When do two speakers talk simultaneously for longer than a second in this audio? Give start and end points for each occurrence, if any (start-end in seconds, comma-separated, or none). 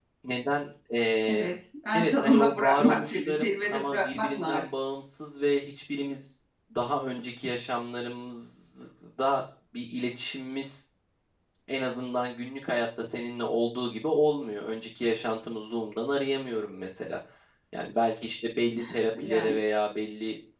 1.9-4.6